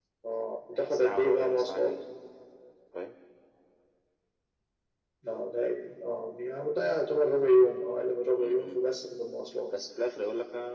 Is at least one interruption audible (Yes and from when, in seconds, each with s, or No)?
Yes, from 0.7 s